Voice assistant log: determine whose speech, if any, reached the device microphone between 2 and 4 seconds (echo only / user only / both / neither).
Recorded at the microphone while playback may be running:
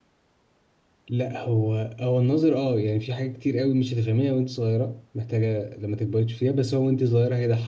user only